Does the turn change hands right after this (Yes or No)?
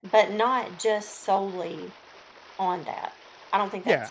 Yes